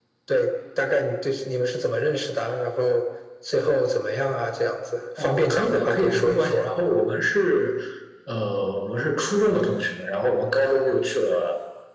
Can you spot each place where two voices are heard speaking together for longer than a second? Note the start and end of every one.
5.2-6.7

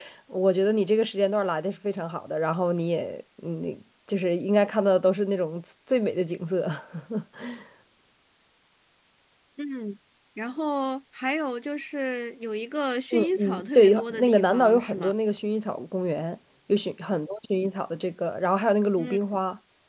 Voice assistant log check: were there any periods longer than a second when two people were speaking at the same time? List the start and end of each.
13.1-15.1

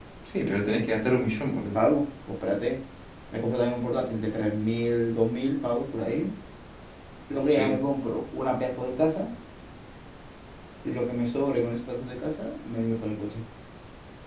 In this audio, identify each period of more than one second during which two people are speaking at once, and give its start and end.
none

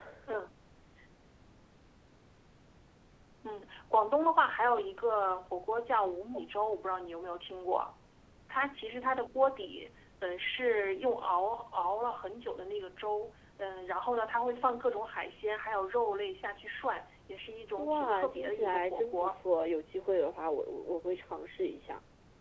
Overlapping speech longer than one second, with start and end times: 17.8-19.3

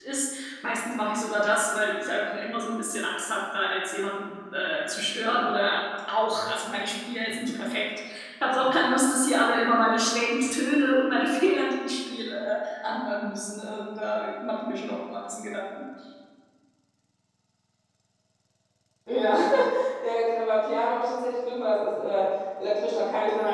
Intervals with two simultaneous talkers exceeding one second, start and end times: none

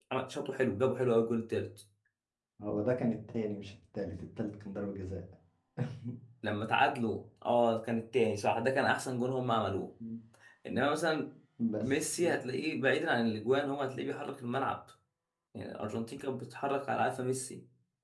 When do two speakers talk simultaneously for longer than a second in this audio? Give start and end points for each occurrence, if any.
none

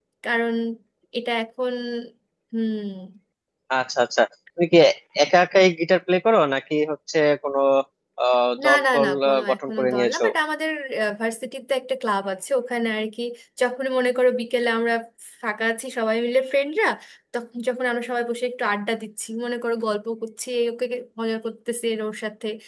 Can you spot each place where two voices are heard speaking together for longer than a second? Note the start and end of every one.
8.6-10.2

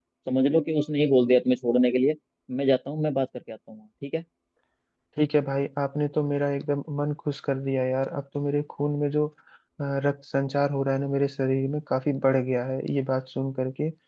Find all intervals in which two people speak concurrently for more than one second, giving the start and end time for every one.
none

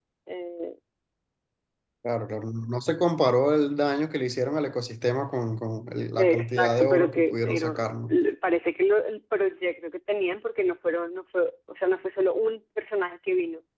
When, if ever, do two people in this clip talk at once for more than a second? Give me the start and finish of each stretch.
6.2-8.2

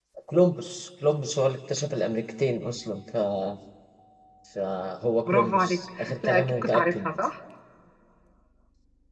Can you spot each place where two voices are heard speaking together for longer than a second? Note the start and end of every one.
5.3-7.1

